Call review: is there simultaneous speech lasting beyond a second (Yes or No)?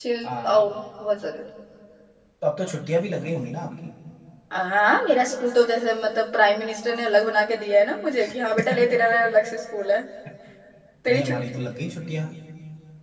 No